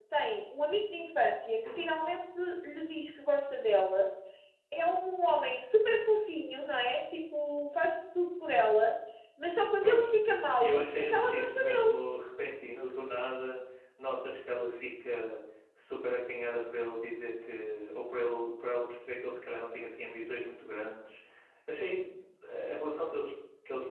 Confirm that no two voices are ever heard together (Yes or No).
No